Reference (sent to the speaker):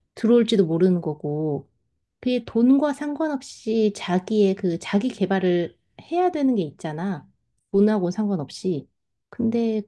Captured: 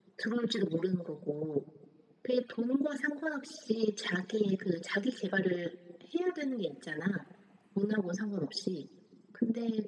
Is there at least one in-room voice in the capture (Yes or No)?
No